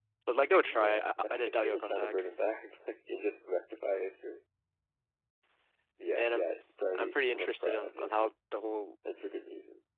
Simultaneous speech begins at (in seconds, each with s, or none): 0.6 s